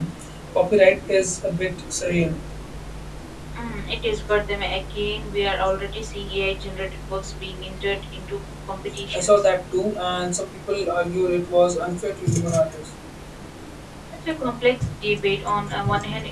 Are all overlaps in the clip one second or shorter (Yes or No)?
Yes